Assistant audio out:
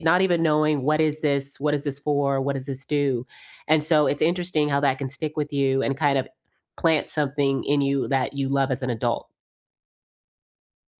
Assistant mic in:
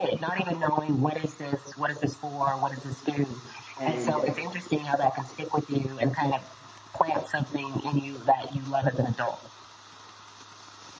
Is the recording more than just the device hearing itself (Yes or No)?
Yes